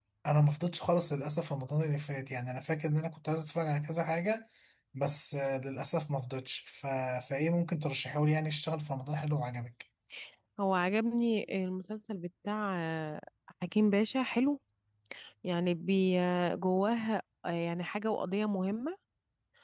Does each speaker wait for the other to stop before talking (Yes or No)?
Yes